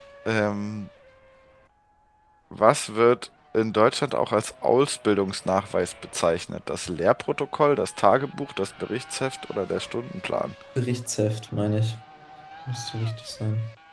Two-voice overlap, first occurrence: none

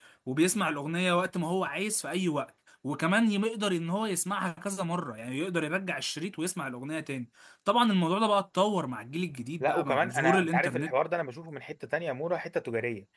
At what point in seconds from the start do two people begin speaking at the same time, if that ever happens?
10 s

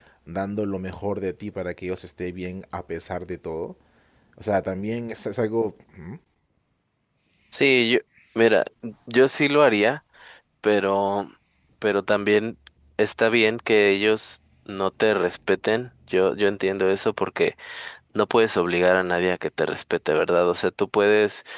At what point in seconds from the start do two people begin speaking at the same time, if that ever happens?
none

